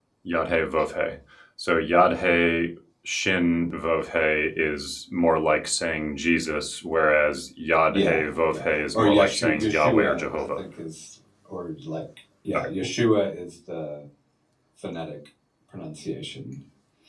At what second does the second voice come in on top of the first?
7.9 s

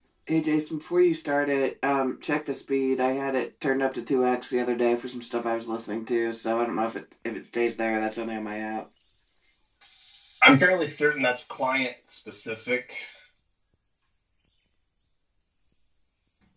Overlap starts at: none

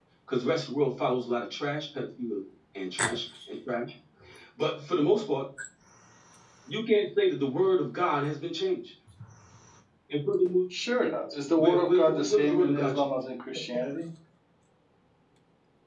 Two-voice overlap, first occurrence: 11.6 s

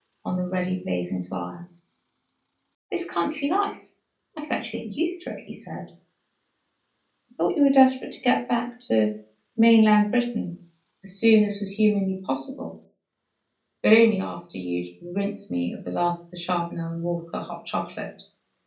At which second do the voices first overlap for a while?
none

